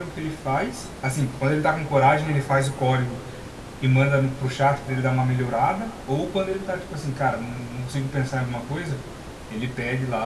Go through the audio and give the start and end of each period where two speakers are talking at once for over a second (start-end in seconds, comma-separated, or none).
none